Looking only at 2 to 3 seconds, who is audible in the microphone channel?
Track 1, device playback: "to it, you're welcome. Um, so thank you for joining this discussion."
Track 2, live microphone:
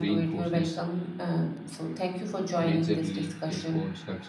both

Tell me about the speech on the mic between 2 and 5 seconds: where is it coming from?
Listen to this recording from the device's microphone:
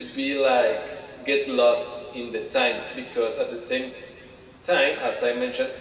echo only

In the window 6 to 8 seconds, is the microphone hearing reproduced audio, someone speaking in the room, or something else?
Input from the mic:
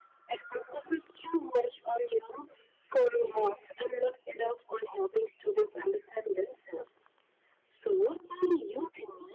echo only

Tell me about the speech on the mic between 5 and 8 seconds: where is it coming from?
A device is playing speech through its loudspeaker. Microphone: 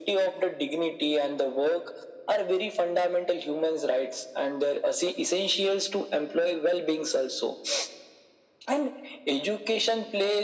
echo only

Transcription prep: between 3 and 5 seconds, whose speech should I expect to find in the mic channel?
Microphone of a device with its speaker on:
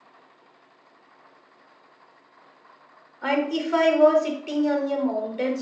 user only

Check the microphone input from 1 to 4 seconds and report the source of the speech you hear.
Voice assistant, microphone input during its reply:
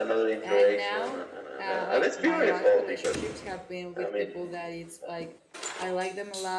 both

